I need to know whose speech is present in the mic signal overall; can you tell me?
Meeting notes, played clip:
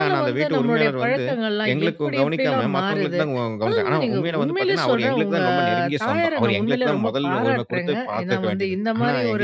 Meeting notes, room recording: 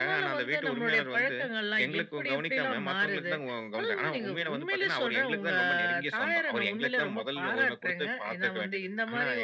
echo only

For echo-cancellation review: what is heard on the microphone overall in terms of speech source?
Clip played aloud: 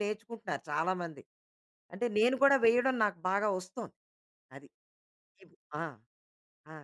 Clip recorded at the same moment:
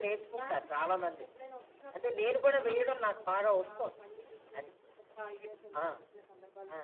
both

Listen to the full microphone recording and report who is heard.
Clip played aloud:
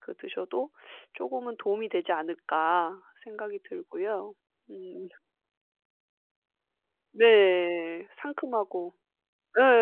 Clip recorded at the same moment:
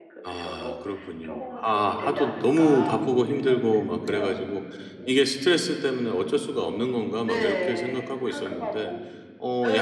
both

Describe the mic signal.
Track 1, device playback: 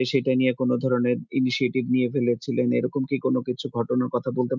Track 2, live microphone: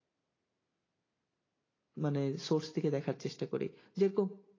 user only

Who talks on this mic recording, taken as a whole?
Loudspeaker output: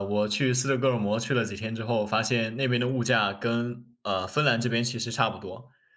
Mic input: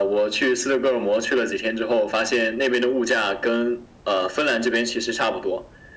echo only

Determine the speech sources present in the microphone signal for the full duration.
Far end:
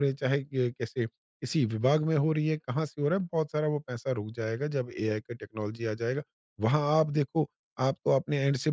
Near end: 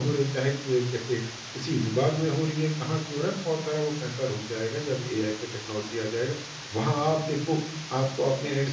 echo only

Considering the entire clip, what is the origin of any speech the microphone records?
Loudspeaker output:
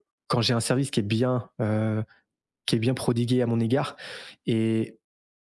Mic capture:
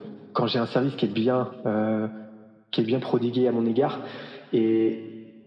echo only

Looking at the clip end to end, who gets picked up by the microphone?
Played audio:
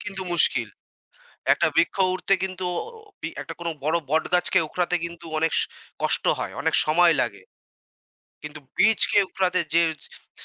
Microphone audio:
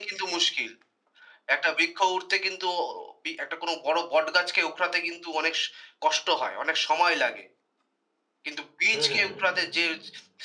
both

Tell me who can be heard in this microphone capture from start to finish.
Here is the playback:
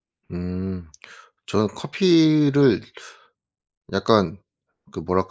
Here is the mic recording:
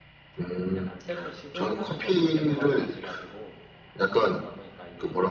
both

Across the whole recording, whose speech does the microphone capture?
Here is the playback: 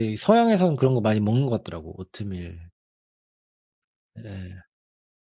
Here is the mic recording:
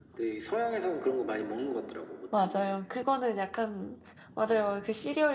both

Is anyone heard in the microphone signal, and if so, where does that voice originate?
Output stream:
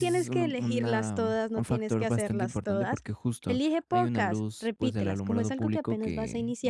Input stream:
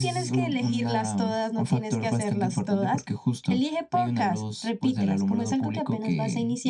echo only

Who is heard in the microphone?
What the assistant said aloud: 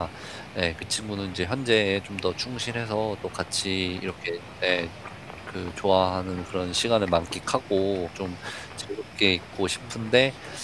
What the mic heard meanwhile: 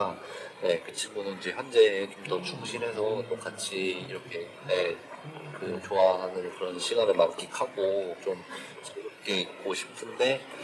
both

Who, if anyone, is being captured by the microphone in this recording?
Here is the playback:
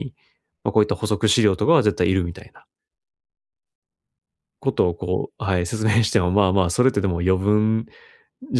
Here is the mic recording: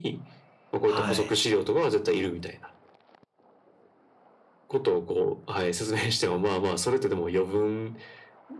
both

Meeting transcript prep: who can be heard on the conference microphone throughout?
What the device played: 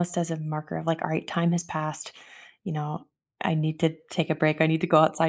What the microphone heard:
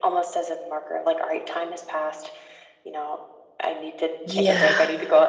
both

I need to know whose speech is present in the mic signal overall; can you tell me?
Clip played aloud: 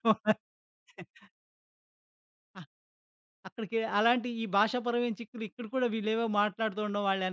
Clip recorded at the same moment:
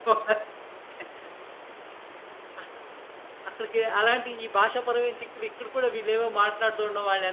echo only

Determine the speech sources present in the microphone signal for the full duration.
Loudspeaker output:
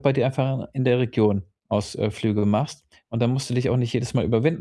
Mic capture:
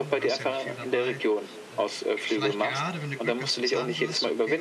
both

